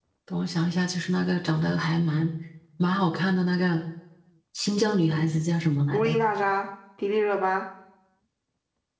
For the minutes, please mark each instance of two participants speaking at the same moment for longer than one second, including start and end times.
none

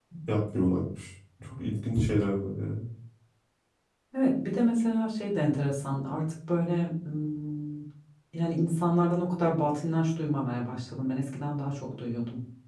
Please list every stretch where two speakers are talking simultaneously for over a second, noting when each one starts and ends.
none

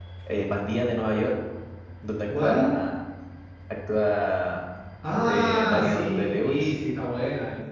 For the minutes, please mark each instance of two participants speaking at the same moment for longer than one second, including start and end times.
5.3-6.7

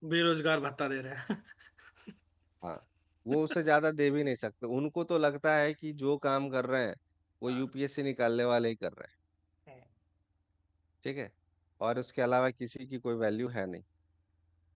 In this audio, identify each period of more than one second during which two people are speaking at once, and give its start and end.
none

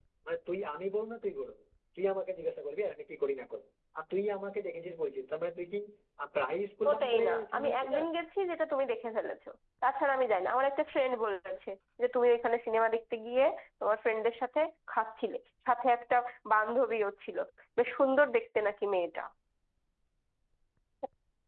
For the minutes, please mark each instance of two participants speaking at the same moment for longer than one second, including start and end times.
6.9-8.1

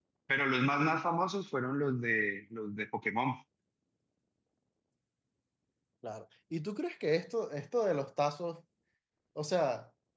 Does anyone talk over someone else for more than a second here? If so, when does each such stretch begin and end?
none

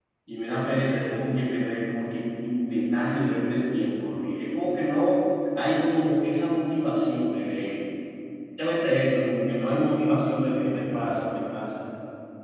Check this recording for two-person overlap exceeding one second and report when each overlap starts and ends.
none

